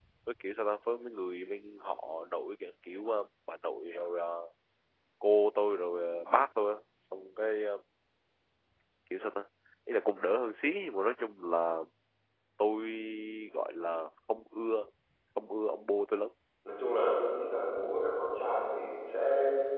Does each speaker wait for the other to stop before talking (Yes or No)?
Yes